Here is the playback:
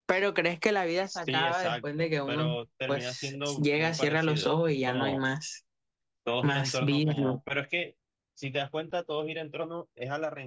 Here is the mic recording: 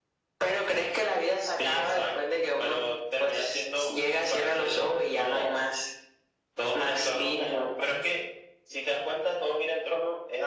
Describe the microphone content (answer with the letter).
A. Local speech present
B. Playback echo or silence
B